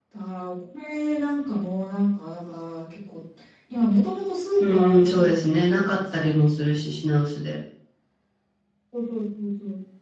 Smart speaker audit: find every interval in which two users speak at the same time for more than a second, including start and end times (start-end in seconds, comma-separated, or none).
4.6-6.4